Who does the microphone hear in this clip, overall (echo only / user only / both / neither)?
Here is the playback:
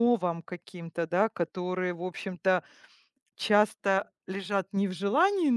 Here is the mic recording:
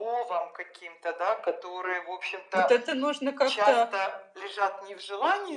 both